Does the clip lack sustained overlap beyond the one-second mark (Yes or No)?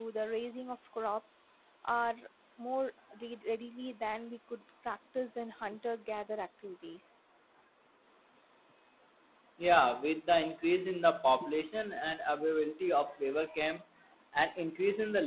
Yes